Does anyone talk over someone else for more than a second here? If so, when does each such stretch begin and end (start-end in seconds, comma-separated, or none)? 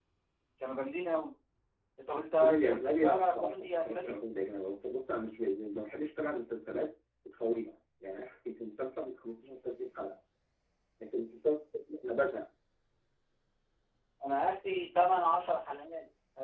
2.4-4.1